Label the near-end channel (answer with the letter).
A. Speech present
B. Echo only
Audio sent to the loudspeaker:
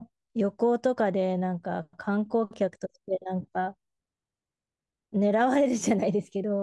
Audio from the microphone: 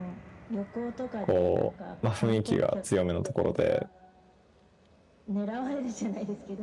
A